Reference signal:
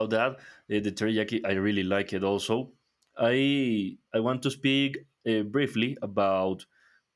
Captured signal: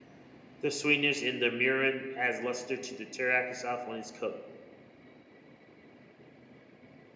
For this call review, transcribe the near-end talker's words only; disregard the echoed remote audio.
The sweetness in the mirin adds luster to the teriyaki sauce when it's cooked.

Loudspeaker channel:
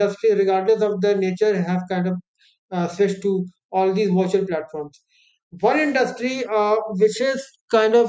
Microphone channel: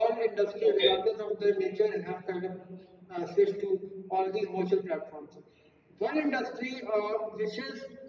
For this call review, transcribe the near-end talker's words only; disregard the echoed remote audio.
okay

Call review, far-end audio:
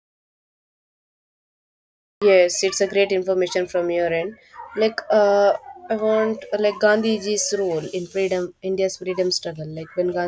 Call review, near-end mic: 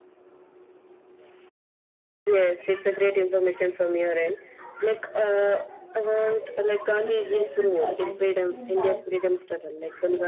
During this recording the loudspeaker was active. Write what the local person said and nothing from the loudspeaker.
live a simple and disciplined life

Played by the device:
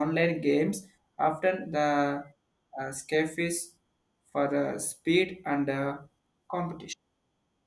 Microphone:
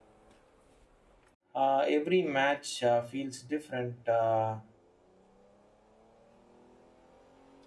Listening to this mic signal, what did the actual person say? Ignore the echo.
Uh, every match uh, feels different. Uh,

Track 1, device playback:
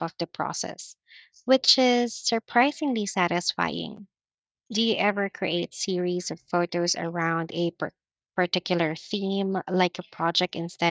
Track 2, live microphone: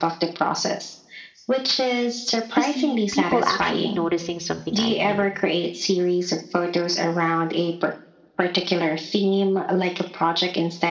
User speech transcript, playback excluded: to see people actually noticing something I'd made.

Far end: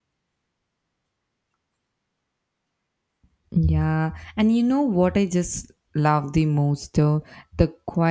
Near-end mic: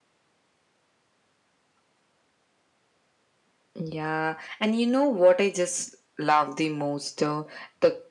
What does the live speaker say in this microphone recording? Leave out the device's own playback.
none

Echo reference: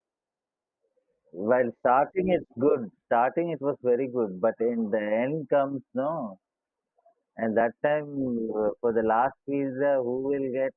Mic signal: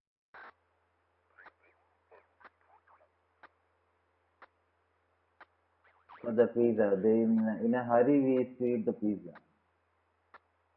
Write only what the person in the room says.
For the pizza, they in in a hurry we eat the pizza.

